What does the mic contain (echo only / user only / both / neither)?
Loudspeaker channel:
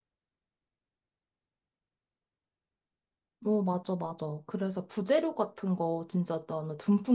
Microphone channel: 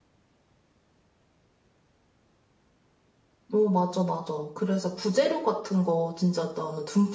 echo only